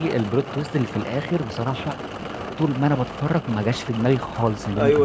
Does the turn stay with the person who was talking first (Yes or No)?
No